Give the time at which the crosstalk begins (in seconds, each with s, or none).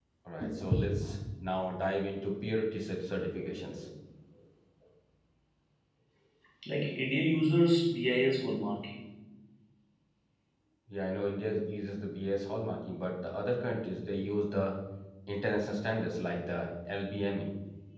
none